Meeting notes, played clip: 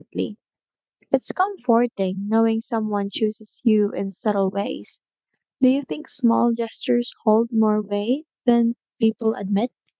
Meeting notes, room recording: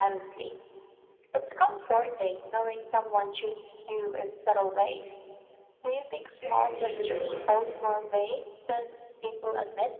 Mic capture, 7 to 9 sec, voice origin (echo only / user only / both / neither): both